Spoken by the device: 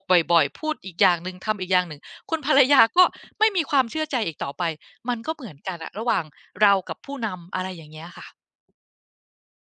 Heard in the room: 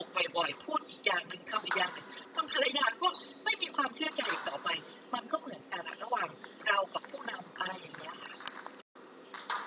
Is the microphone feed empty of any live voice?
Yes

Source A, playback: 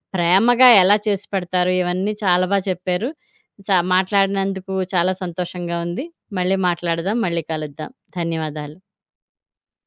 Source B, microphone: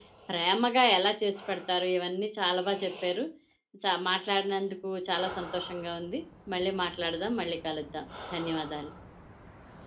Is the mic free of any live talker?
Yes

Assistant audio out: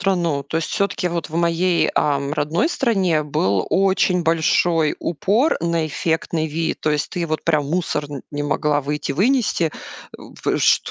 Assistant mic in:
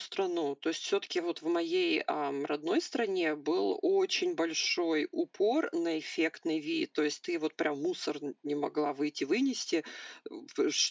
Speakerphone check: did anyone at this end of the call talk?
No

